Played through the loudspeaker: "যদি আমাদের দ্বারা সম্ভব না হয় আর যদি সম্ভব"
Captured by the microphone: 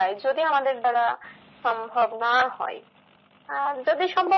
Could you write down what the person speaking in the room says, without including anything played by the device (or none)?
none